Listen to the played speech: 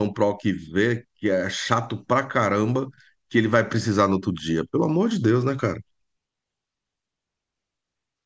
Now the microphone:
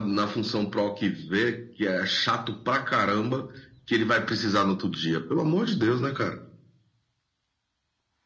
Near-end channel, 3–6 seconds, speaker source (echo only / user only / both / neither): echo only